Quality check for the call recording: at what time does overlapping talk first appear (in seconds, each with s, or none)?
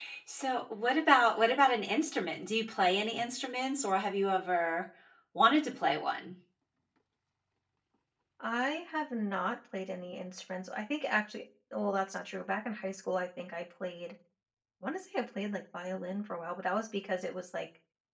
none